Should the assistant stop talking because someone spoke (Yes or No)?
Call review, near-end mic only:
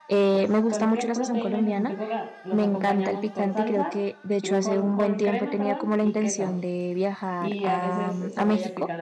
Yes